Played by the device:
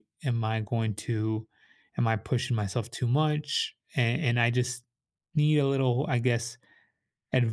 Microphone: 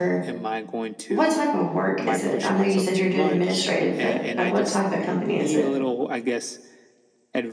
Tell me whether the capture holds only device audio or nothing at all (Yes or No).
No